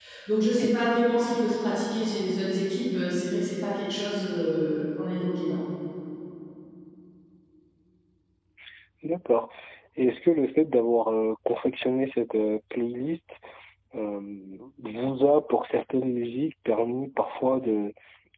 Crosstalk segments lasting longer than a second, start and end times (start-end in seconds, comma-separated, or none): none